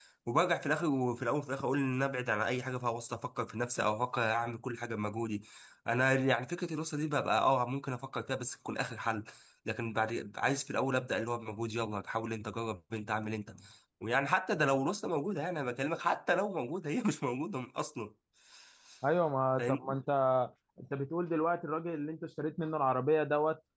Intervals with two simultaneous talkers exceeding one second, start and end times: none

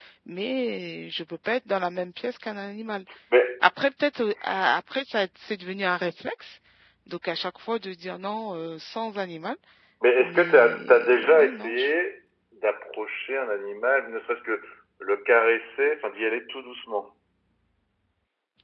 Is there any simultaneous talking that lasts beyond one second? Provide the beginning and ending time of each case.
10.2-11.9

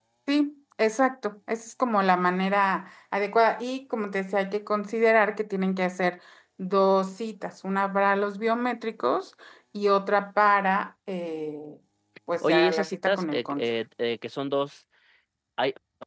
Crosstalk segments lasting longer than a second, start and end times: 12.4-13.7

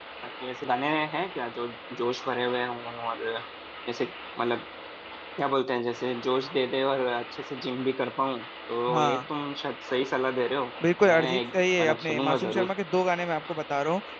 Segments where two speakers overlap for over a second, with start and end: 11.0-12.7

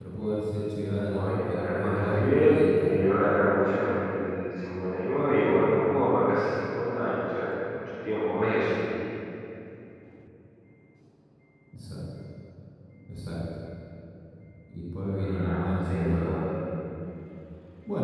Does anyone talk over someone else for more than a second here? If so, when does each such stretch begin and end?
1.1-3.0, 15.2-16.4

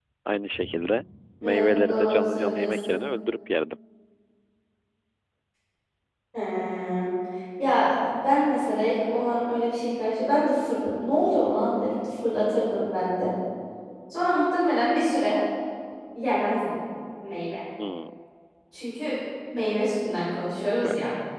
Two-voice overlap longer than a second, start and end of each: 1.4-3.0

